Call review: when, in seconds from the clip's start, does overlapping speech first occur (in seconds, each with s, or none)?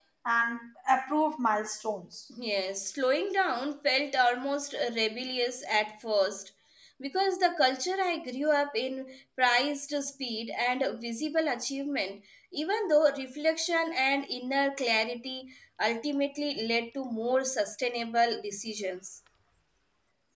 none